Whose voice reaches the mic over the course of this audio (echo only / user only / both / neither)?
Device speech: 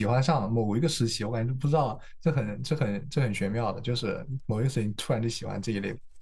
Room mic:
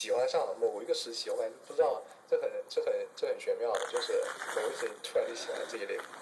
echo only